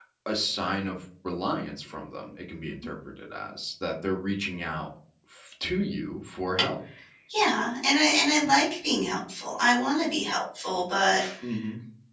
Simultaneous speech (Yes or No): No